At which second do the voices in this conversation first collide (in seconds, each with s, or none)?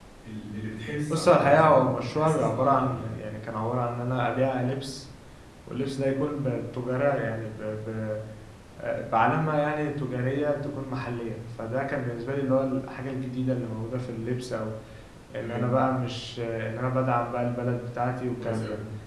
1.1 s